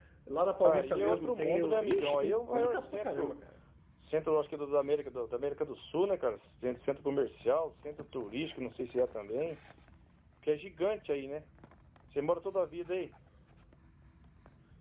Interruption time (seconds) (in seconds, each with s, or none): 0.6 s